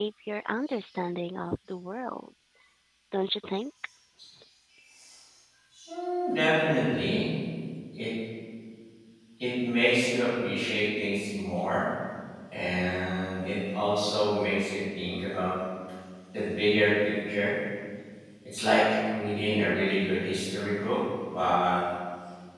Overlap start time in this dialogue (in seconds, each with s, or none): none